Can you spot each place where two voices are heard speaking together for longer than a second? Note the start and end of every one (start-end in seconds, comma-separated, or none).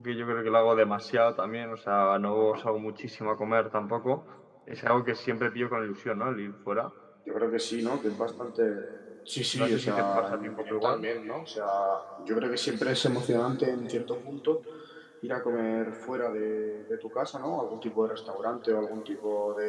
9.6-11.0